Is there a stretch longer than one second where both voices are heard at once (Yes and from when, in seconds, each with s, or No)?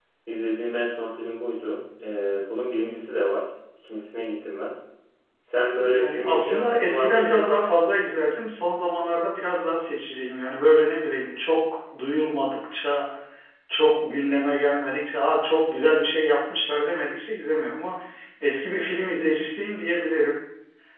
Yes, from 5.9 s